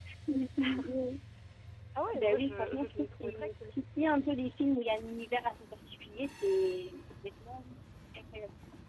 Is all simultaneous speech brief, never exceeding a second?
No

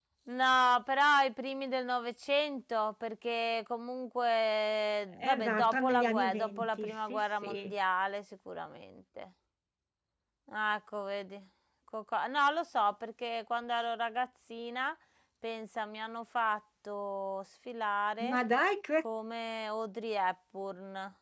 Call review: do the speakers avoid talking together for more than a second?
No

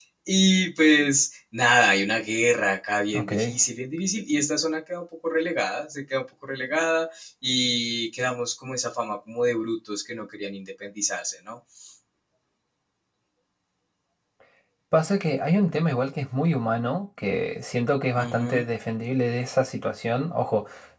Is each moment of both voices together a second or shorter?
Yes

